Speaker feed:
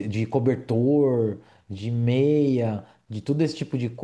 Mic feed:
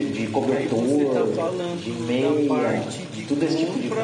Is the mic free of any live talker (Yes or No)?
No